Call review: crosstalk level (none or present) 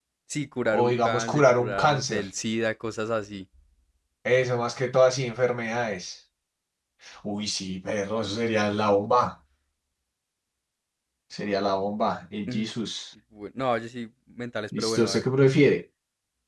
present